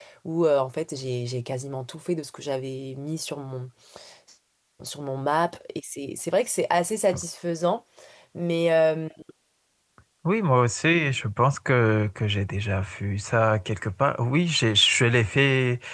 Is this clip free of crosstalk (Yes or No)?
Yes